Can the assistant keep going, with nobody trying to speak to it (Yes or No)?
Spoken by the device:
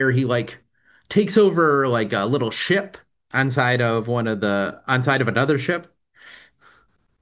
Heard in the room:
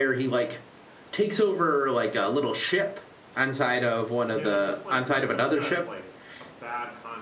No